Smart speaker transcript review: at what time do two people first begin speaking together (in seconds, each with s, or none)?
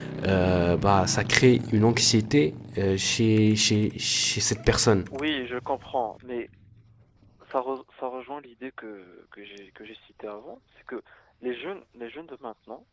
none